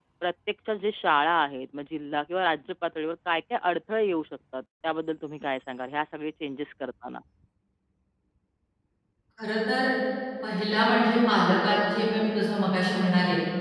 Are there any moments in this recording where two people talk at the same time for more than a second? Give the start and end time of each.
none

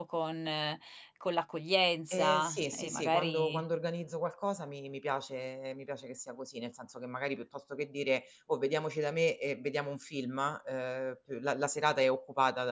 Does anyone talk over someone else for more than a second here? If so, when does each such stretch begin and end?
2.1-3.6

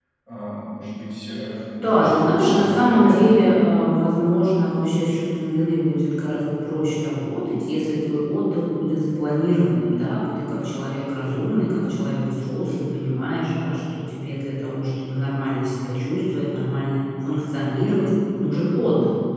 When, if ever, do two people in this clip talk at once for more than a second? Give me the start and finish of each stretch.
1.9-3.5

